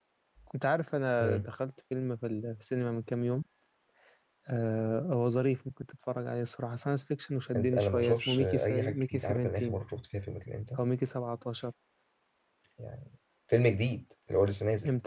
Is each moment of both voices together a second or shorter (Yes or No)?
No